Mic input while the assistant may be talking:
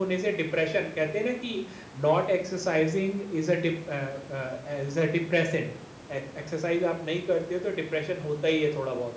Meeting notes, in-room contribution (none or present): none